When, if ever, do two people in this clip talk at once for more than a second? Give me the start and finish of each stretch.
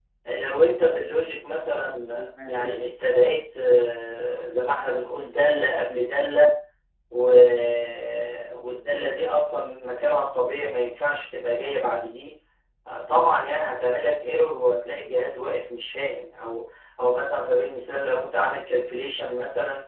1.6-2.9

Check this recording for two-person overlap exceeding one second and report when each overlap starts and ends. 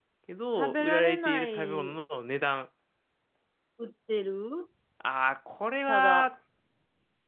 0.6-1.9

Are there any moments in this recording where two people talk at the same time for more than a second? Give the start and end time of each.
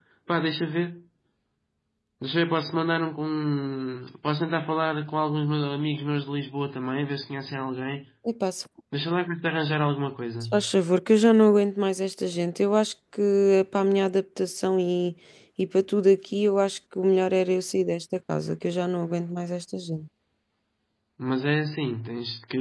none

